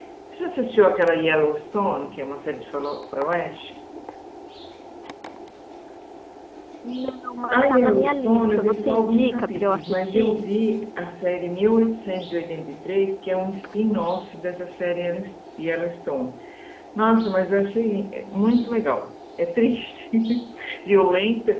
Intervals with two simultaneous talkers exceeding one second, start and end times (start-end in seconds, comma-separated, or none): 7.5-10.5